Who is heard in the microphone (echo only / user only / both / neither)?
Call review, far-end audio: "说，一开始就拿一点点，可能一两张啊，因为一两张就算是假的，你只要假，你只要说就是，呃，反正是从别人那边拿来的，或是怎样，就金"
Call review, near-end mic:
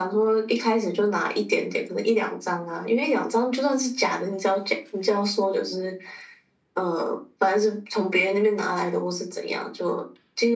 echo only